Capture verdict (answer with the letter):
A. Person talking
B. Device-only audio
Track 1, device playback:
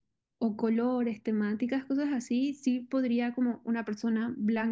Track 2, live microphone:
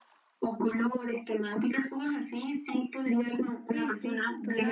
A